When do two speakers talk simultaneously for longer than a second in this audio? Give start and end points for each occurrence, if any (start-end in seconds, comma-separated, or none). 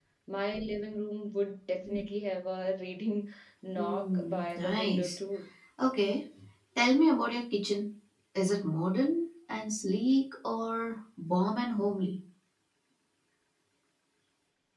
3.8-5.2